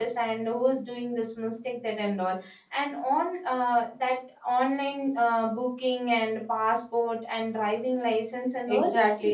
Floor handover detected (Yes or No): Yes